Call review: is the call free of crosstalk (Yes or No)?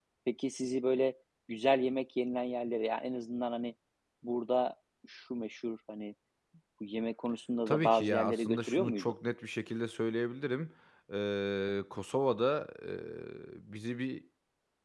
No